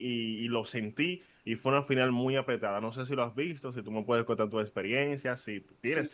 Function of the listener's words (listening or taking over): taking over